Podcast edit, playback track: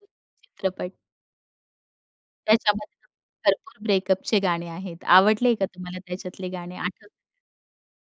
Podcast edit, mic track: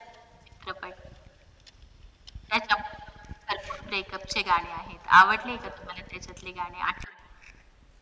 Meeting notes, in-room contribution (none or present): none